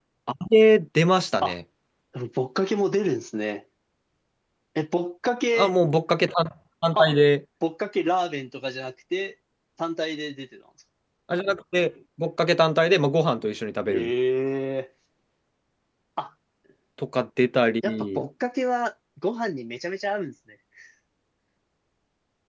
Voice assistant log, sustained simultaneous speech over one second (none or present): none